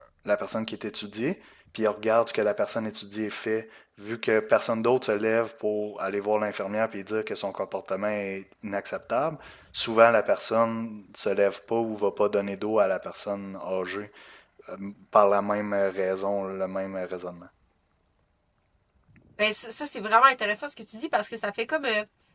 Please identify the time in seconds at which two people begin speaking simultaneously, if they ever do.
none

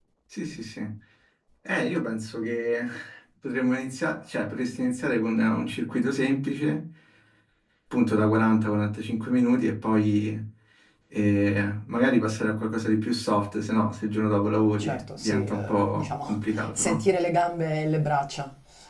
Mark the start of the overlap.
15 s

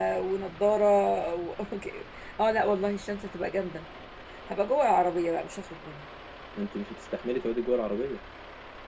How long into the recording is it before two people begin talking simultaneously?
none

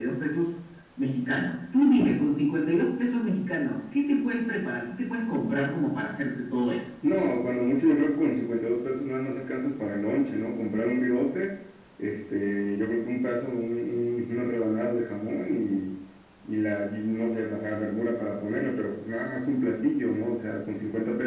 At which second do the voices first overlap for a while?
none

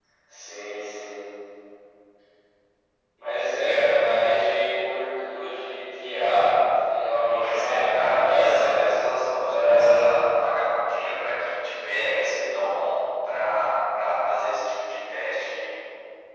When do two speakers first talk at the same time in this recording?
7 s

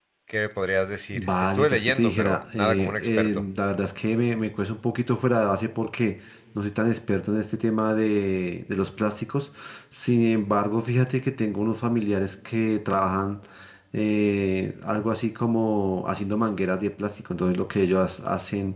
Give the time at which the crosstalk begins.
1 s

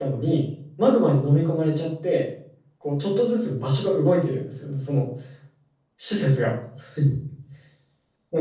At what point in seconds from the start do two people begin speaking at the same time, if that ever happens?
none

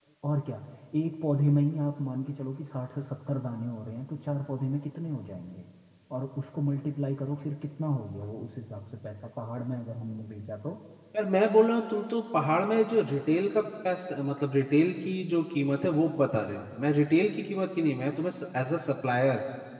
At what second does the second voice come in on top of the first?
none

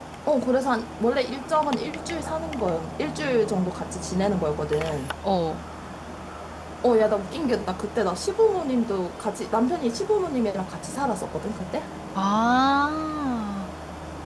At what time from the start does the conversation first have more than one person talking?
none

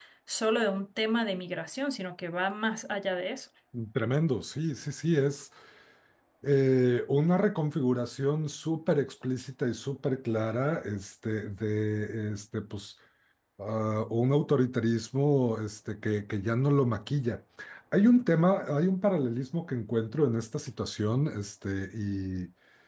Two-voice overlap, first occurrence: none

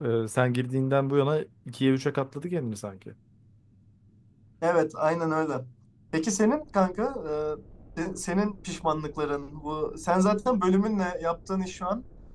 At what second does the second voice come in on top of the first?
none

